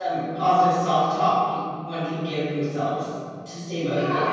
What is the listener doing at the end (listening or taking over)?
taking over